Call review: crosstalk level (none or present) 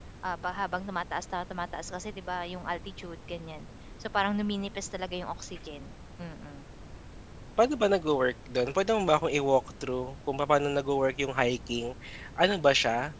none